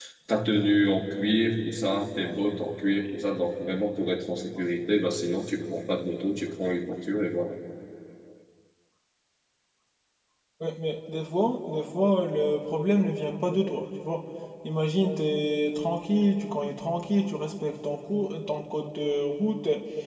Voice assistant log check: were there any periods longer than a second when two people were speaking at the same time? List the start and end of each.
none

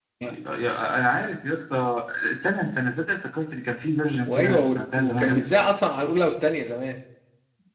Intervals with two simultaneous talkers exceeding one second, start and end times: 4.2-5.7

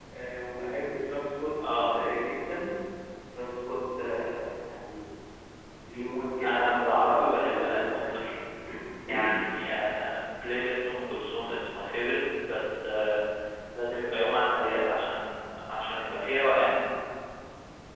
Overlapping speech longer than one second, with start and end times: 6.4-8.2

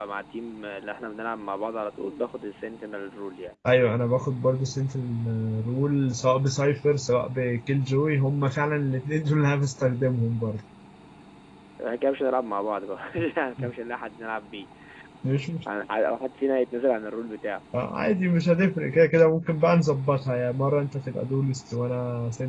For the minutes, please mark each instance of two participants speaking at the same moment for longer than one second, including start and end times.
none

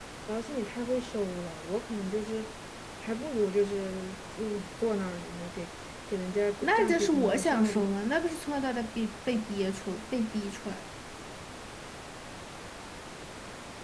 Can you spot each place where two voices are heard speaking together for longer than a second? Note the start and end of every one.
6.6-7.9

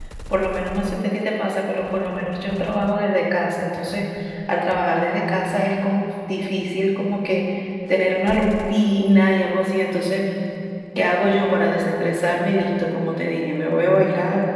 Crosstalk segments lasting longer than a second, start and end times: none

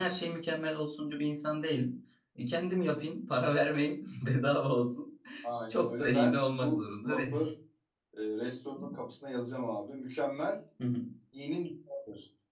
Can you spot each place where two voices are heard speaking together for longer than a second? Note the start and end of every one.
5.7-7.5

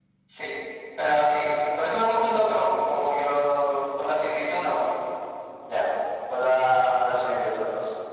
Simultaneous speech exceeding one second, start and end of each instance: none

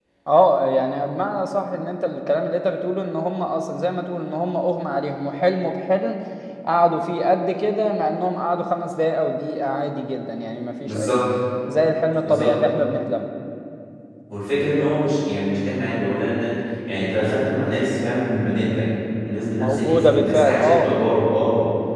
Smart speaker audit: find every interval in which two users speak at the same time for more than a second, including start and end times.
19.6-20.9

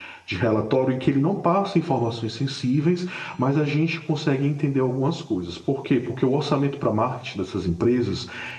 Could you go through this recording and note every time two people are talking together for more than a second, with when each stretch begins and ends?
none

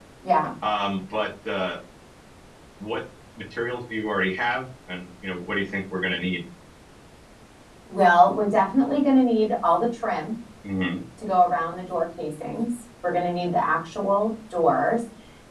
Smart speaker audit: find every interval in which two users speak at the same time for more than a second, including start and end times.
none

